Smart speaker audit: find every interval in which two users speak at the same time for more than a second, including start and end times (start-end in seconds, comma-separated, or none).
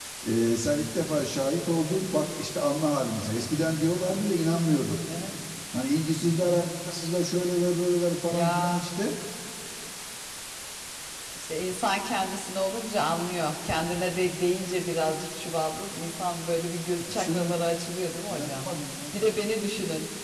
none